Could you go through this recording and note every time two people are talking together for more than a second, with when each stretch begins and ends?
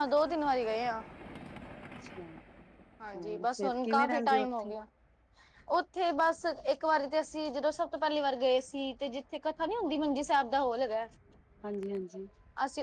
3.1-4.7

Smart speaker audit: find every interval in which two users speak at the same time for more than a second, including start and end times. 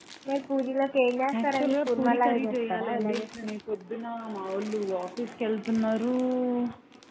1.4-3.5

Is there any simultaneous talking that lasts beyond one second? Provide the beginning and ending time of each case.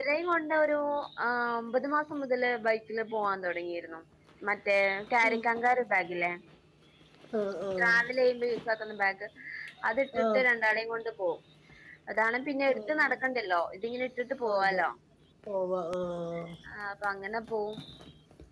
none

